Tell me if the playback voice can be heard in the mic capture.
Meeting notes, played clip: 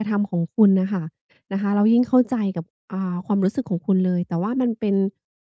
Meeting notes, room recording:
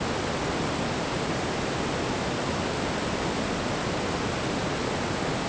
No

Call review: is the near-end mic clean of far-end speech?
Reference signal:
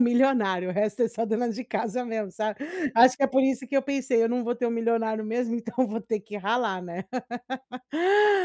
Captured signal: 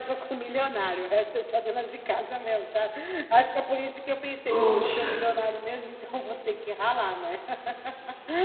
No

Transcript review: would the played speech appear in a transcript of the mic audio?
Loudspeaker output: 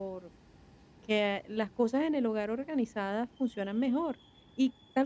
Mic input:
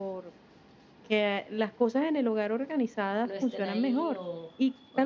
Yes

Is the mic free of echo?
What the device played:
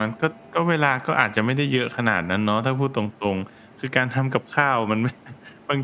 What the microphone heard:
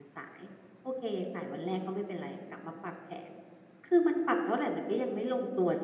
Yes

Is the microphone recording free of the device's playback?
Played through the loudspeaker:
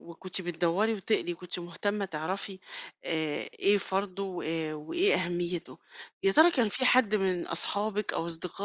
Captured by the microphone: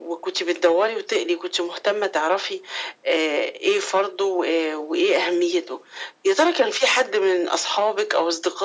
No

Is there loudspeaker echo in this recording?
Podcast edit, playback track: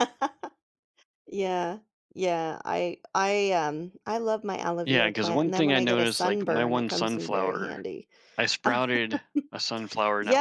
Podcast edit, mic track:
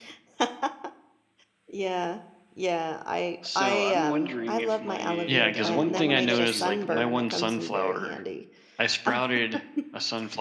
Yes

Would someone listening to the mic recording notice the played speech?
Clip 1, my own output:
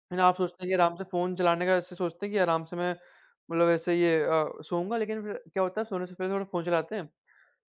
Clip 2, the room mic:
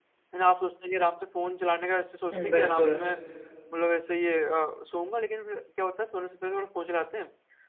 Yes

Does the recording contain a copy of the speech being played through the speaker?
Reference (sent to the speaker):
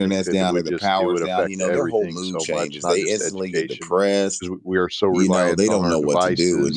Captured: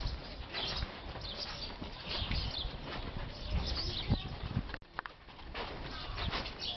No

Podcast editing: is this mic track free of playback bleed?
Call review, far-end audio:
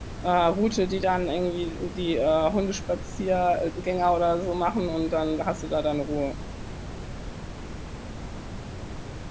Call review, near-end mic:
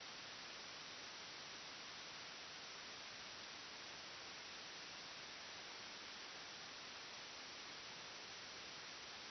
Yes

